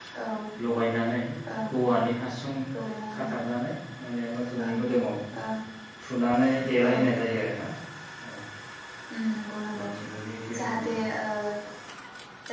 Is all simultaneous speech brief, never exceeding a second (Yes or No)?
Yes